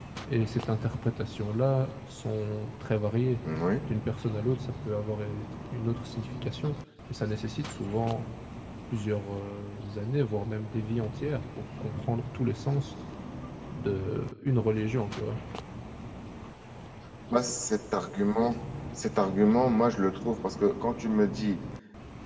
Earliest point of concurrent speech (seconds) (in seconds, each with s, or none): none